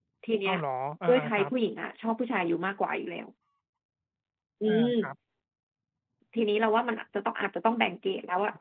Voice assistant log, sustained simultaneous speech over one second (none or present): none